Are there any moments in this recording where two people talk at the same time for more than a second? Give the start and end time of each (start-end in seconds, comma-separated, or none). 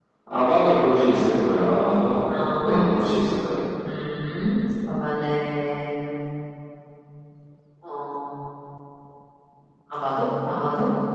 none